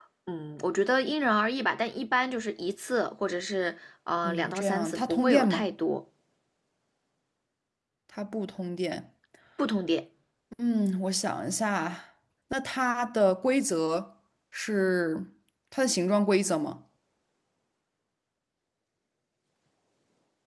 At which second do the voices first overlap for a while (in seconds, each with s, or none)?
4.2 s